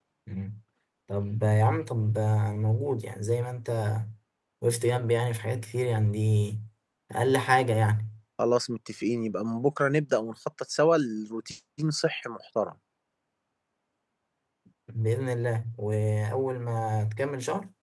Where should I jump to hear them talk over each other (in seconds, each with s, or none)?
none